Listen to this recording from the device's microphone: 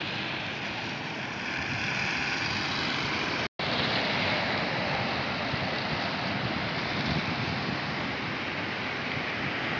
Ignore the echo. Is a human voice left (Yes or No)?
No